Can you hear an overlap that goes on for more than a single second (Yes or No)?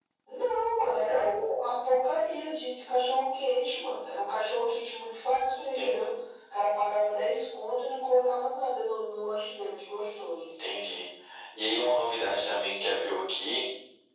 No